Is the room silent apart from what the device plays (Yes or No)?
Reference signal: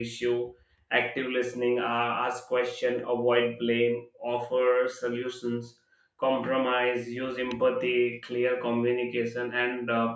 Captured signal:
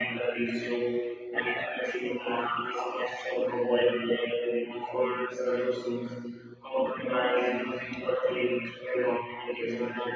Yes